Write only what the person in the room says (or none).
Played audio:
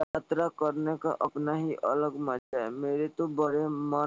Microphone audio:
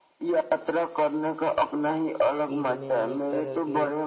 عید میں انیک طرح کے